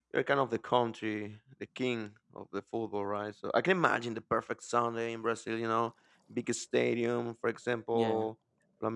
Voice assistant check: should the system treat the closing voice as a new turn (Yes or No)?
No